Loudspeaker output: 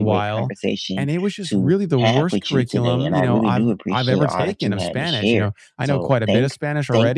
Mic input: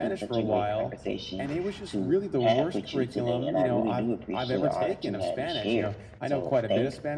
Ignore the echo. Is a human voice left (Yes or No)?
No